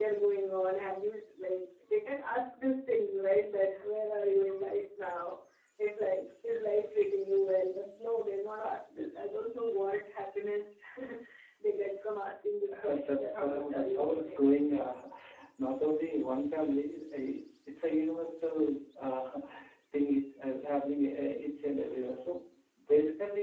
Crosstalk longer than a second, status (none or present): present